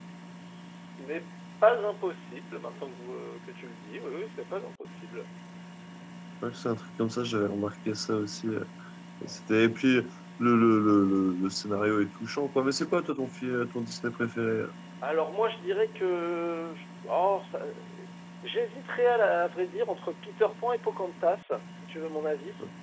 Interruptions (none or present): none